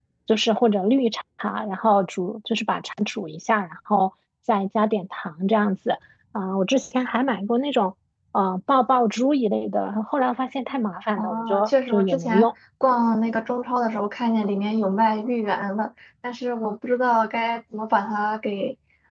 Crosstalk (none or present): present